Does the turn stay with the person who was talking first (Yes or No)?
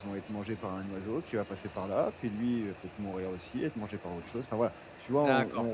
No